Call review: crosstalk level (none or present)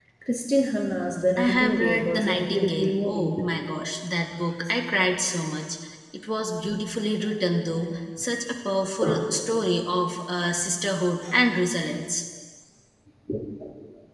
present